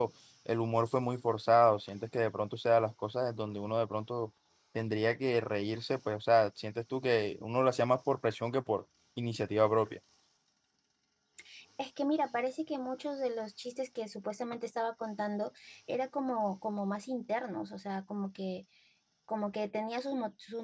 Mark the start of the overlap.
none

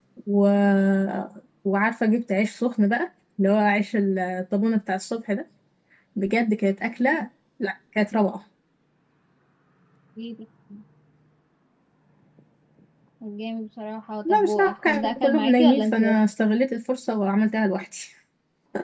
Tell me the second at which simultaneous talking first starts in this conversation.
14.2 s

